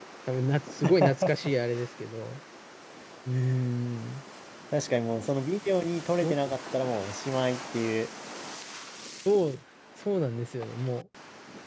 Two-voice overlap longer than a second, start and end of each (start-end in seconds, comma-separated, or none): none